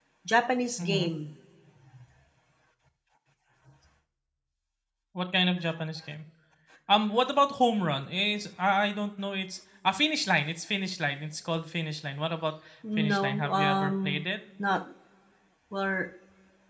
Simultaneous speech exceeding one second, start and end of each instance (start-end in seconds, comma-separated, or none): 13.0-14.2